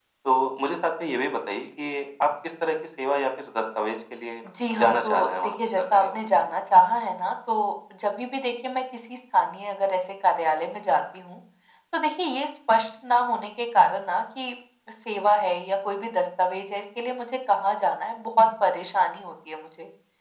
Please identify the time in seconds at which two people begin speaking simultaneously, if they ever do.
4.8 s

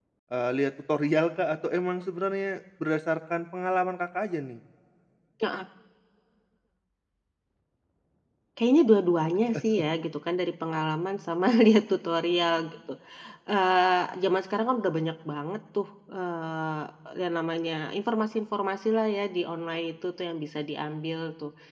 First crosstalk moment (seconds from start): none

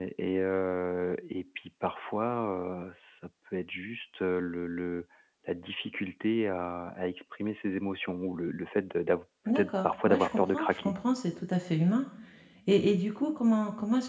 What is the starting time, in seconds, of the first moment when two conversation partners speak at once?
9.5 s

